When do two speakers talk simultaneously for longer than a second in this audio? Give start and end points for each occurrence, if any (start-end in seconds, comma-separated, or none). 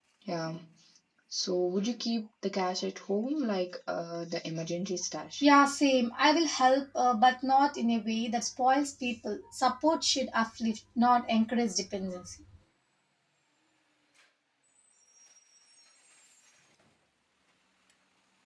none